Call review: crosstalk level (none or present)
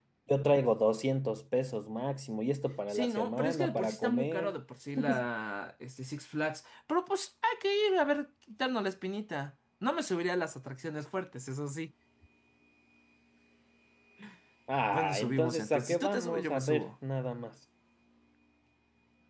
present